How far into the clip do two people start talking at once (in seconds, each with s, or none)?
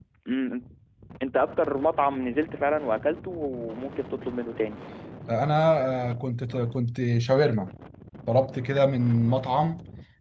none